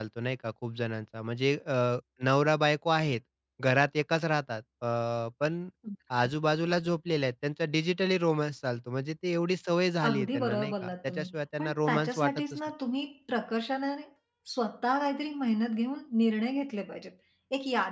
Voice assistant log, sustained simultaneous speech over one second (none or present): present